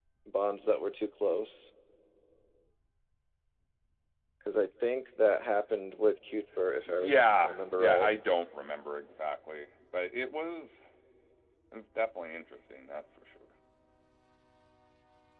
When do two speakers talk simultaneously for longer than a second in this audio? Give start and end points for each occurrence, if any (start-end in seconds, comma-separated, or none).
6.9-8.1